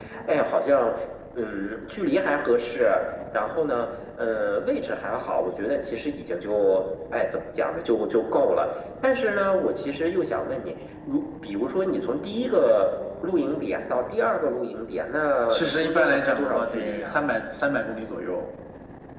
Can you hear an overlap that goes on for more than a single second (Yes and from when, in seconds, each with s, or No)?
Yes, from 15.5 s